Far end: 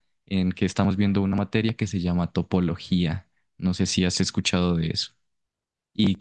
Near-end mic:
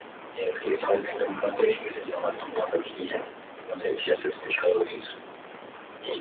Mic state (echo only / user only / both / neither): echo only